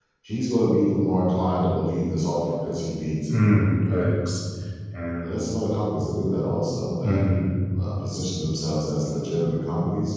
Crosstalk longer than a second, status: none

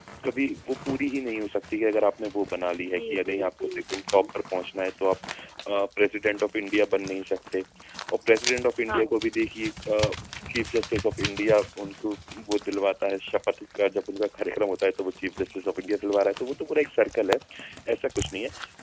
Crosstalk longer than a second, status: present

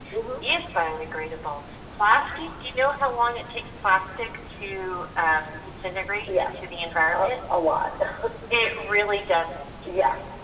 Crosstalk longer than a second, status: none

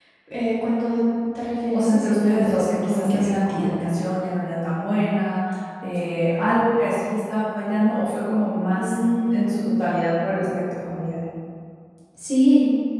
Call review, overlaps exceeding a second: present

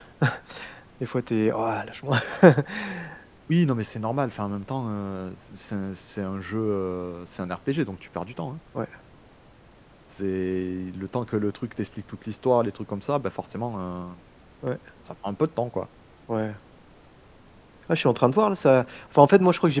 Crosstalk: none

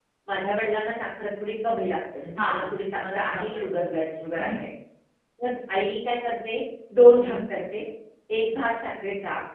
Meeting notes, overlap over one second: present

